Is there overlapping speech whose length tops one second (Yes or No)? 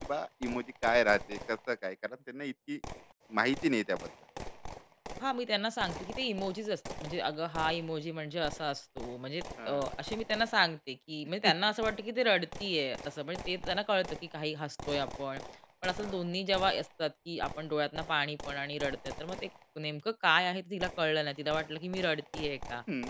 No